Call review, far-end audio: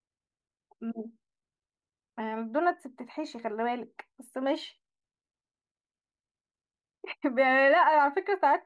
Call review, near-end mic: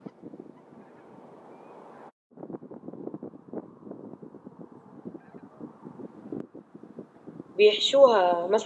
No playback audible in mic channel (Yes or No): Yes